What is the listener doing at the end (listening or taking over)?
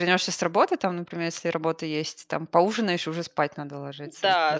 taking over